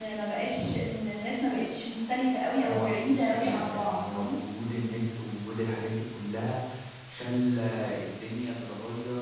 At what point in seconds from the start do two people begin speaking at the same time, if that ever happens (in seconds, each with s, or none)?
2.6 s